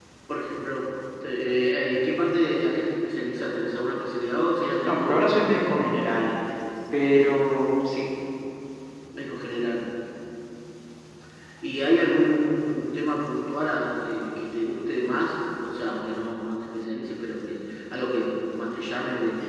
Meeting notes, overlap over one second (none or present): present